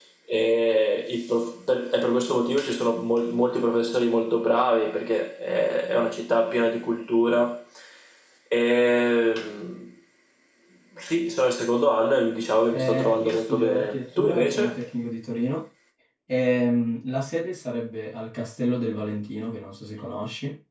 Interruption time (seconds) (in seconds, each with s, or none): 12.7 s